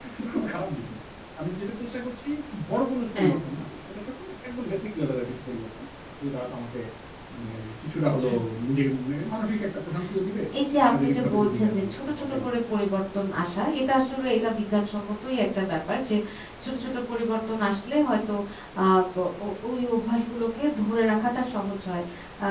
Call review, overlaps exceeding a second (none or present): present